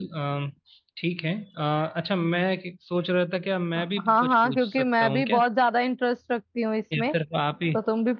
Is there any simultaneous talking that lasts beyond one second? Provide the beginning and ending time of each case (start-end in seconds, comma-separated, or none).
4.0-5.4